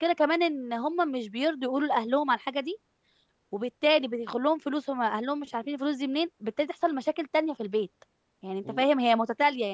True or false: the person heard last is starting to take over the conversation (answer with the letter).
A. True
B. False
B